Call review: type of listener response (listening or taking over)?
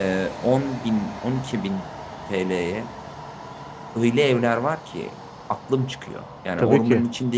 listening